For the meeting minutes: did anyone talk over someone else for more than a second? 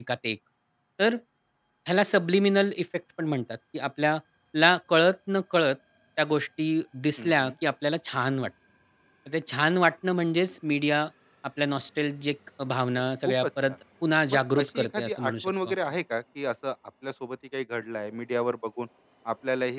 Yes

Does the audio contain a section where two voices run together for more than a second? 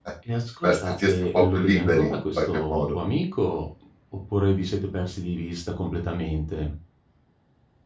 Yes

